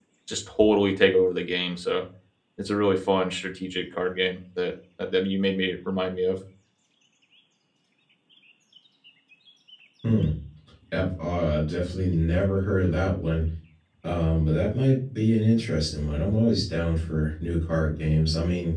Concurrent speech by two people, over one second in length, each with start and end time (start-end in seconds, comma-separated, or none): none